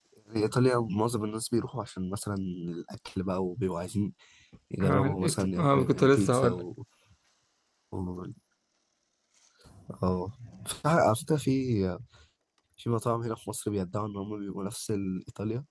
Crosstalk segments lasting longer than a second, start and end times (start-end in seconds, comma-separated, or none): 4.8-6.6